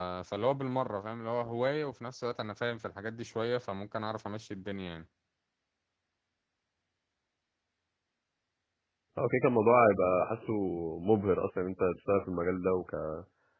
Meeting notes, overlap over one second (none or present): none